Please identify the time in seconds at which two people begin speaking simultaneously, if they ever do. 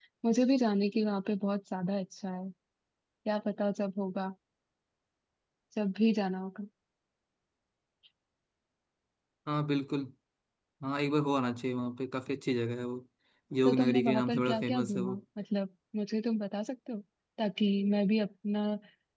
13.6 s

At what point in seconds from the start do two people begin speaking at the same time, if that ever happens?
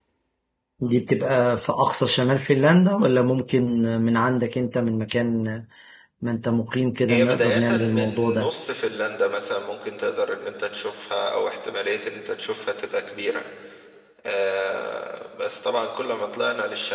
7.1 s

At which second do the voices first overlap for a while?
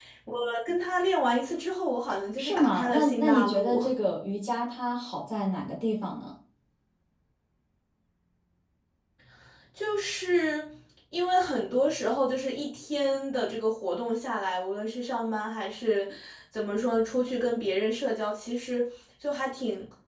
2.4 s

